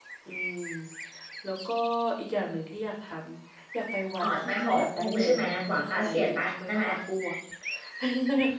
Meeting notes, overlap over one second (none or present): present